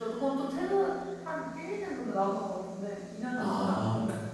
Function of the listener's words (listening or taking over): taking over